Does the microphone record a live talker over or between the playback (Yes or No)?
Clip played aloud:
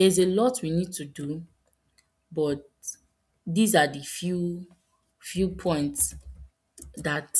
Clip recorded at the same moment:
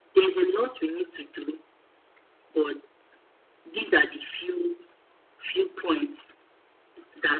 No